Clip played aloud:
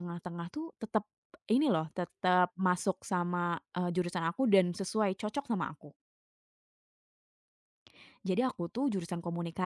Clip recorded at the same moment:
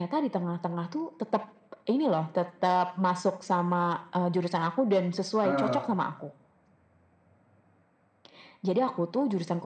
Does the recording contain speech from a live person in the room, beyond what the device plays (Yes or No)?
Yes